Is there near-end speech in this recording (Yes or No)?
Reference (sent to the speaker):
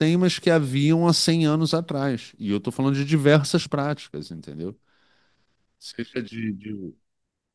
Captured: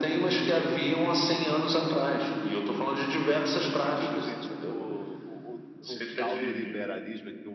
Yes